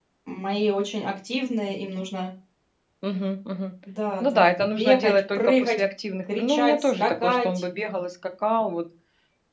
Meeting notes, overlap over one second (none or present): present